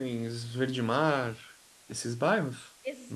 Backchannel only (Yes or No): No